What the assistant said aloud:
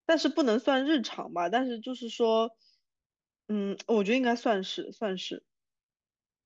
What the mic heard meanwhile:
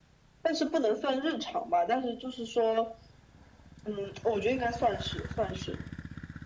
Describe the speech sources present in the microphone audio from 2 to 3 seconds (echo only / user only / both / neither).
echo only